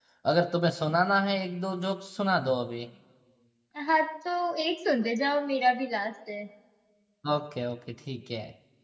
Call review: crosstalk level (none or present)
none